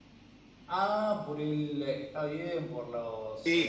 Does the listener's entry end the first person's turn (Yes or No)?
No